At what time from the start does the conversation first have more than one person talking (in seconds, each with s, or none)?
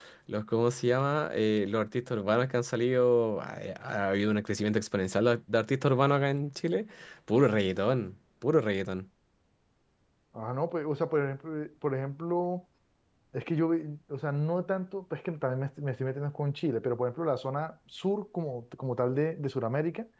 none